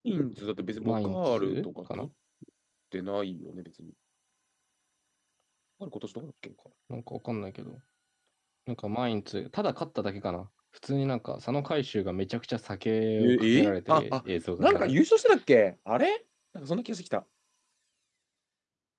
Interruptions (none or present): present